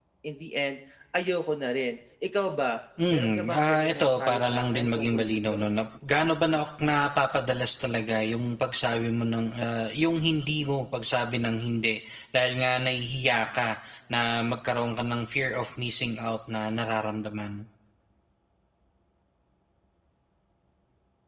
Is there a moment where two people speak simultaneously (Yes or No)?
Yes